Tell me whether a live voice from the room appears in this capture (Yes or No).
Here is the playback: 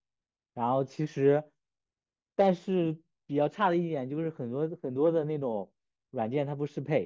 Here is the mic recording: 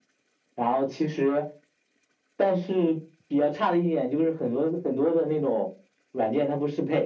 No